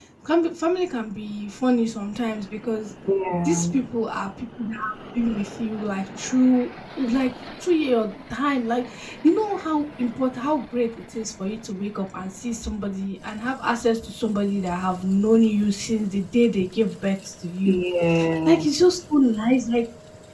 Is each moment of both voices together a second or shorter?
Yes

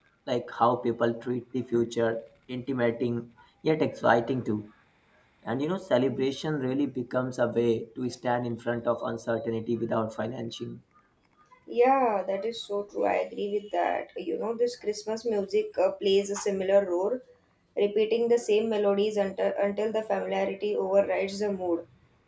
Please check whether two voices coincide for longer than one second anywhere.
No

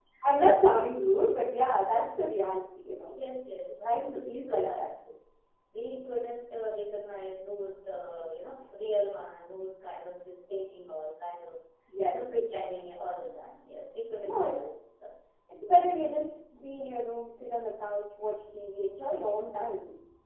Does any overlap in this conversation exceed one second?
Yes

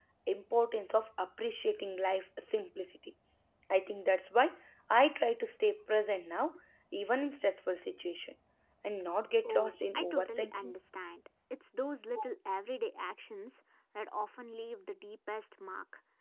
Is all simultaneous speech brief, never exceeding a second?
No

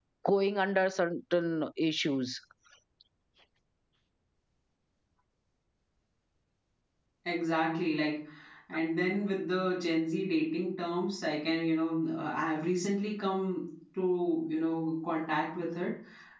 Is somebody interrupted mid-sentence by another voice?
No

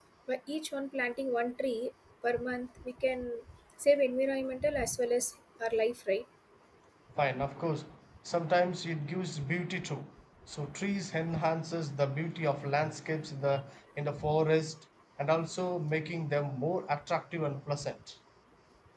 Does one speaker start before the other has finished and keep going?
No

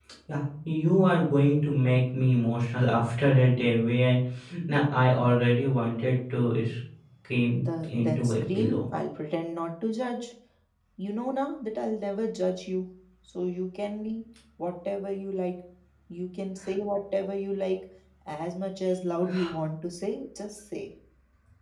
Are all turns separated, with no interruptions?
No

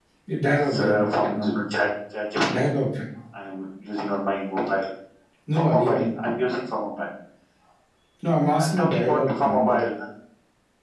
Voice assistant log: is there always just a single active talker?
No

